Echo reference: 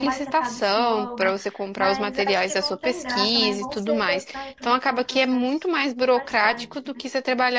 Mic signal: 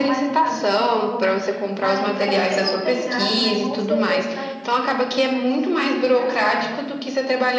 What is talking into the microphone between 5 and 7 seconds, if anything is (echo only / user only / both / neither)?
echo only